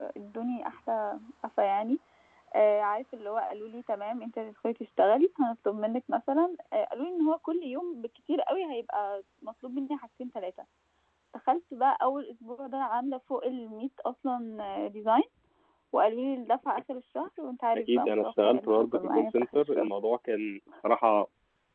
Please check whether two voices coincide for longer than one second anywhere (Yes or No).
Yes